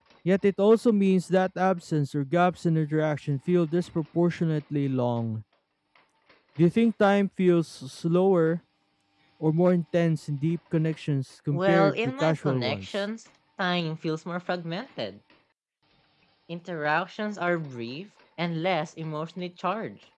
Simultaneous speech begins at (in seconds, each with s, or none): 11.5 s